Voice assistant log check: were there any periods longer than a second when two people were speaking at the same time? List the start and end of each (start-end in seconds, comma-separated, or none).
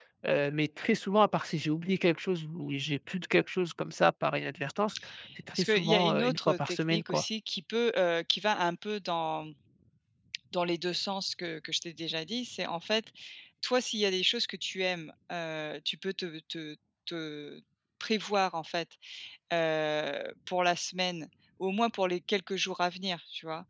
5.5-7.2